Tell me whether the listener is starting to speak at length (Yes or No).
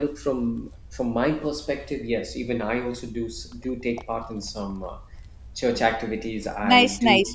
Yes